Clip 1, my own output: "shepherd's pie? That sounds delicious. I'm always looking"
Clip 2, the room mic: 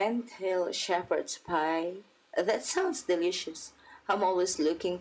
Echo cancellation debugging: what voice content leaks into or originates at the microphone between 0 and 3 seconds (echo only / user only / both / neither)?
echo only